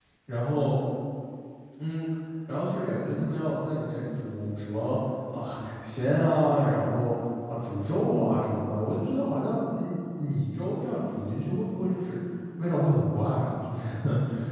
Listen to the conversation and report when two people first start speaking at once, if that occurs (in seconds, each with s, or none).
none